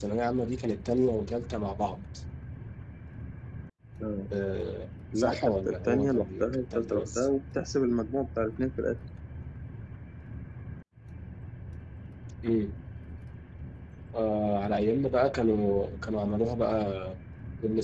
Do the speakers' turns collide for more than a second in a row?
Yes, from 5.2 s

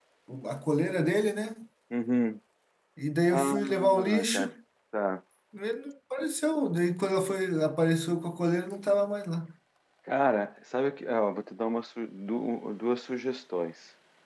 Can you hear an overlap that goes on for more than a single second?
Yes, from 3.3 s

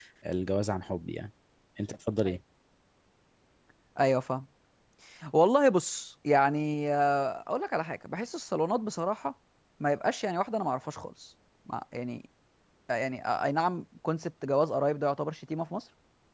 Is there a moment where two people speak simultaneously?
No

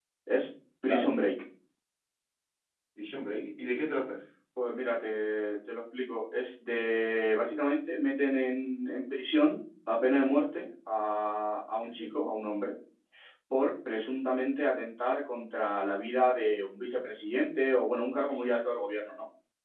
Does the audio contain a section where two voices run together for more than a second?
No

